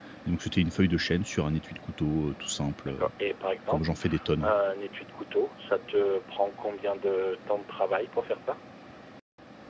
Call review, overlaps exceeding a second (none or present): none